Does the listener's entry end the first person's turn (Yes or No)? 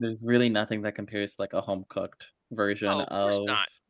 Yes